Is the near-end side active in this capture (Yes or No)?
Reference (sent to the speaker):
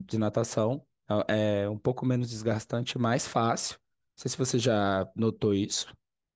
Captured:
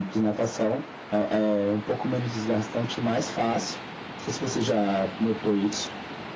No